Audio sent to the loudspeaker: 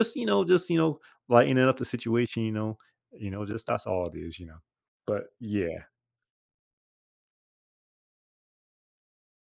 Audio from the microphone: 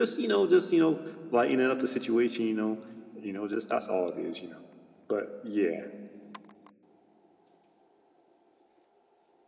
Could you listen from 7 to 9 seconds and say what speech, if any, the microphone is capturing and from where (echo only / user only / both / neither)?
neither